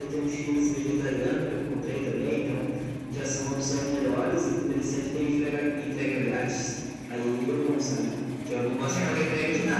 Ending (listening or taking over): listening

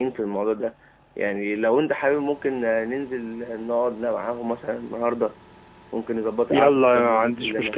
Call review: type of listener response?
taking over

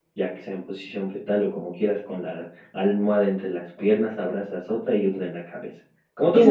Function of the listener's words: taking over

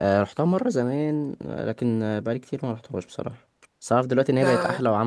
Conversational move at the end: listening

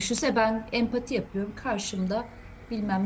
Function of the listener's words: listening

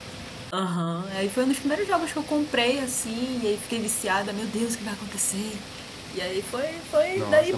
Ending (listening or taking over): taking over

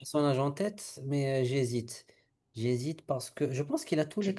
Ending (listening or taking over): taking over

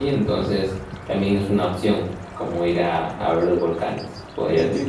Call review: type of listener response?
taking over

